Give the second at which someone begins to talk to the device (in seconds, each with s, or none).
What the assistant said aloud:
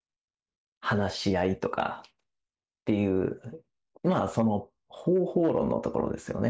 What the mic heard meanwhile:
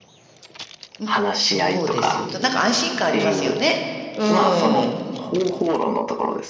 1.0 s